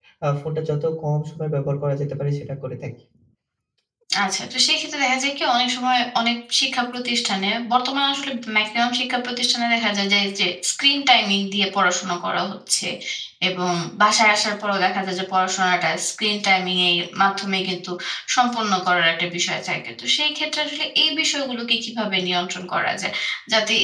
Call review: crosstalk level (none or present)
none